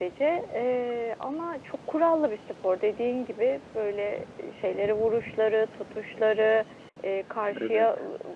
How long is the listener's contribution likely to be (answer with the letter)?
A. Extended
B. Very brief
B